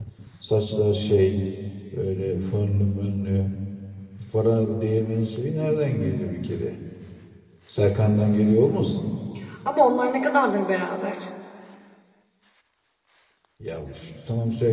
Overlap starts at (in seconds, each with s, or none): none